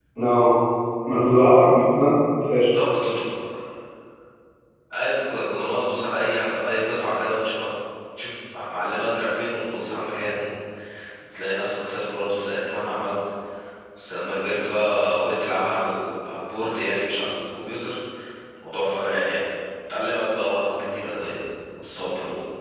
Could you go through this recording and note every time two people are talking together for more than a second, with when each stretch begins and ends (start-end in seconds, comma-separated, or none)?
none